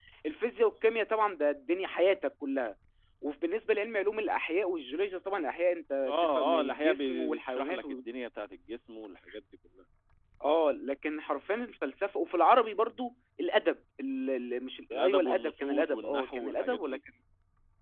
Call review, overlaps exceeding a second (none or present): present